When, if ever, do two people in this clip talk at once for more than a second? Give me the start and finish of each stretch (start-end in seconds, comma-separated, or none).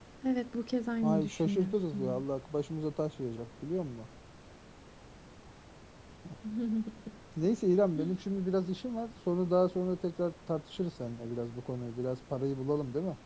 1.0-2.2